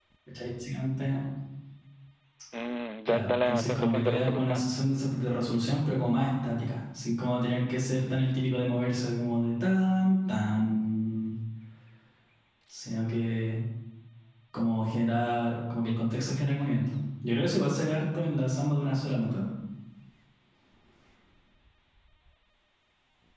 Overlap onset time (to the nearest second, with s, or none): 3 s